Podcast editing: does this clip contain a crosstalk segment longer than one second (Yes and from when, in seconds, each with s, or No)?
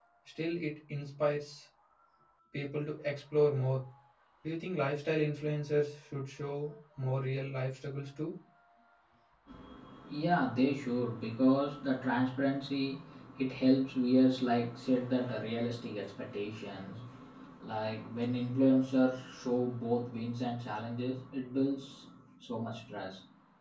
No